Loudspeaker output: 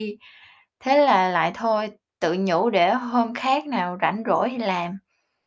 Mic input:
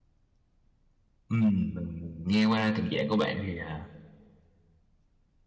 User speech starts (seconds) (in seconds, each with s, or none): 1.3 s